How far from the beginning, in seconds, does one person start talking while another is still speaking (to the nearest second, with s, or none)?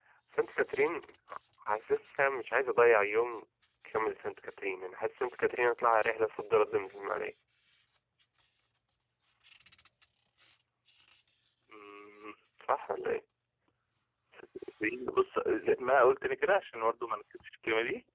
none